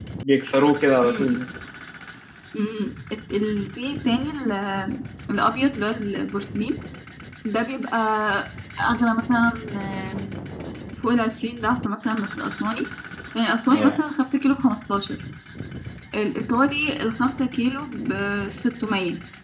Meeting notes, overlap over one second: none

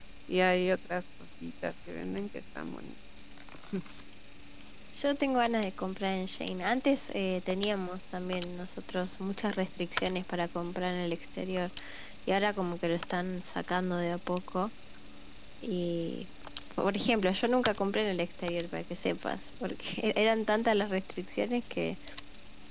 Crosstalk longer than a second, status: none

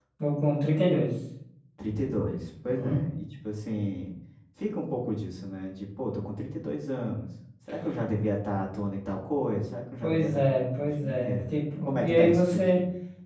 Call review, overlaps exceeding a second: present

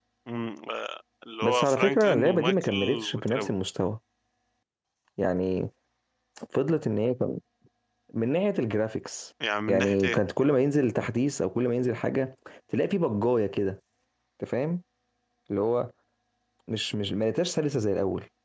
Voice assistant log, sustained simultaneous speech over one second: present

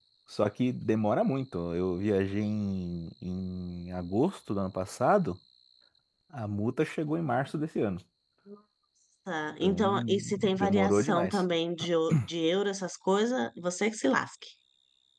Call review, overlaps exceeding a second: present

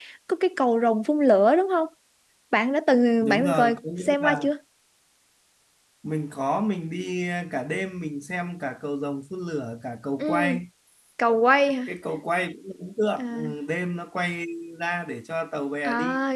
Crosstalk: present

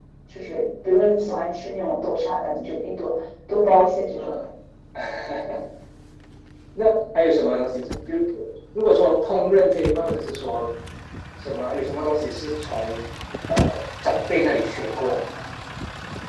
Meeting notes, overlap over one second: none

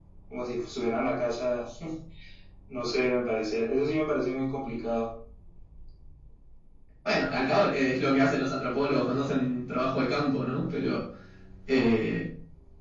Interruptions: none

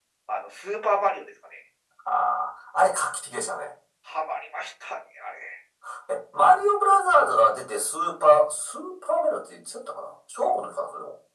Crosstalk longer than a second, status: none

